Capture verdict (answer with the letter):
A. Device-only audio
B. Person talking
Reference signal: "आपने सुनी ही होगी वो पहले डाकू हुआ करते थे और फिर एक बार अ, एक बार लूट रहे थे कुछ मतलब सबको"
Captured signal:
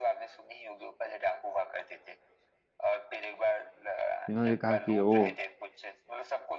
B